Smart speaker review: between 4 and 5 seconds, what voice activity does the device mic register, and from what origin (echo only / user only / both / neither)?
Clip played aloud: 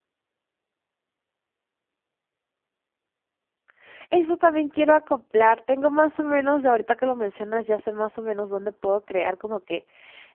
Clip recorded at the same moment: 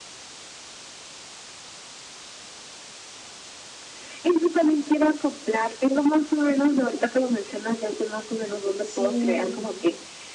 echo only